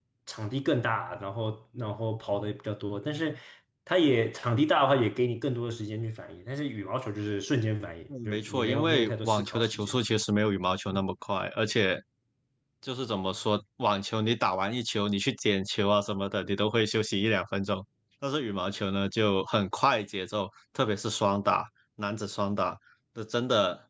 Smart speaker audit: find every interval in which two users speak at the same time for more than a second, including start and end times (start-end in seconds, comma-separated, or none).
8.2-10.0